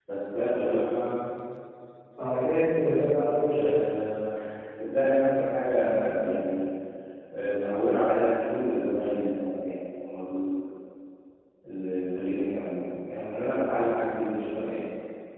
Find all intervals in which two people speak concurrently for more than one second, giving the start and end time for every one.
none

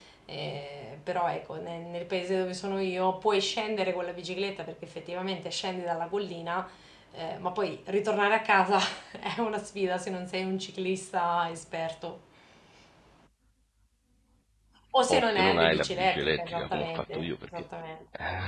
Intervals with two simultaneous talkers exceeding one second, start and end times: 15.1-17.6

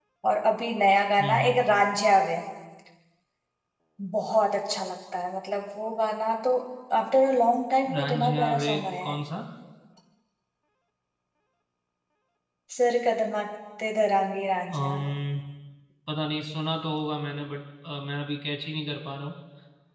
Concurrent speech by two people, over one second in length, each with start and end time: 7.9-9.2

